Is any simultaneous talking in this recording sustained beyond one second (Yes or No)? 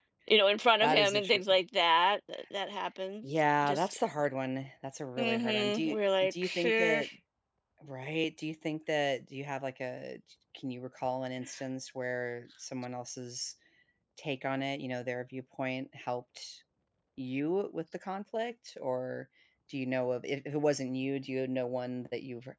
Yes